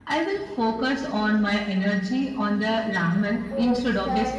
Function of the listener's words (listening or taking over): taking over